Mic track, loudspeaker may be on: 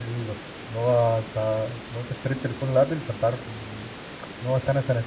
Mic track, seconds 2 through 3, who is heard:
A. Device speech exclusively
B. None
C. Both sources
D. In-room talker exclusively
D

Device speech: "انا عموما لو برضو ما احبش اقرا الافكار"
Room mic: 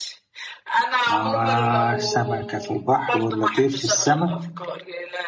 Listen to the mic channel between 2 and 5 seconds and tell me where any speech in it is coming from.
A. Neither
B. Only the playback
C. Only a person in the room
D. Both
D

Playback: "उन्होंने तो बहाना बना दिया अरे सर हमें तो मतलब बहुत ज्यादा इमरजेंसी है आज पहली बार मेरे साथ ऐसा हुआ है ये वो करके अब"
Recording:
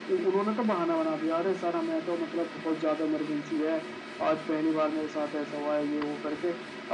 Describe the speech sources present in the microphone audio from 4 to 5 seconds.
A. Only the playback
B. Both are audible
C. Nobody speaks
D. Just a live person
A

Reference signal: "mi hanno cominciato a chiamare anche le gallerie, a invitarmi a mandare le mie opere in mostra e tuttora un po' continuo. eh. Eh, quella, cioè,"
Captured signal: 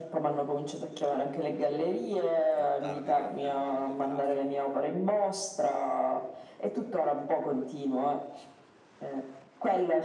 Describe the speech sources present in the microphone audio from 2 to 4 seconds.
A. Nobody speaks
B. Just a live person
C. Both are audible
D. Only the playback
C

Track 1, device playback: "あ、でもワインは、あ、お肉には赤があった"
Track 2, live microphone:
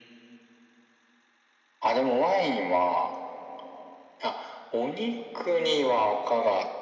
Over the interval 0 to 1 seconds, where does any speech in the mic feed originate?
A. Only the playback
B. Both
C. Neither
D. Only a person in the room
C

